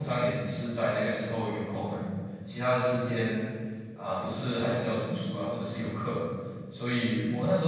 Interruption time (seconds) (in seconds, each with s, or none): none